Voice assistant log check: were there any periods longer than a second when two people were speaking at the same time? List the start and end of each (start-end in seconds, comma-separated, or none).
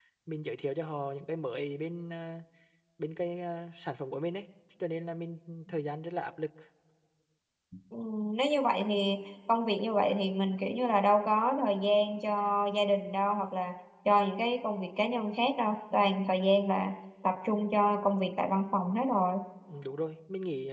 none